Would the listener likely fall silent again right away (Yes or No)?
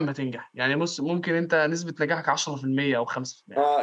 No